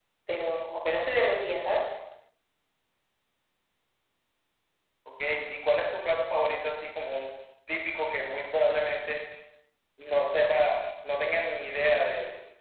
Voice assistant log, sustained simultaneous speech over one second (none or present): none